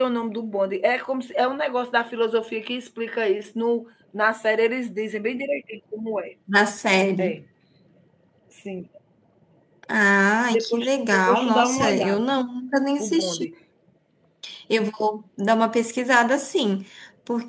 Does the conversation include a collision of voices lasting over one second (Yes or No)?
Yes